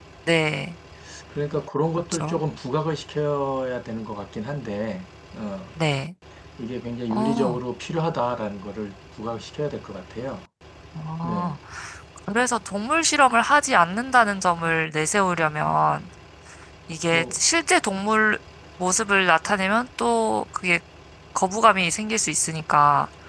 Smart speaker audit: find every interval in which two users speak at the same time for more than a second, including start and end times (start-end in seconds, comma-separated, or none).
none